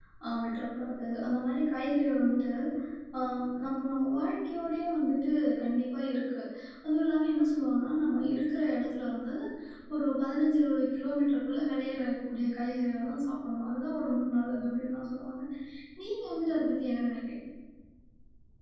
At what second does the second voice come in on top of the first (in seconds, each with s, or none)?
none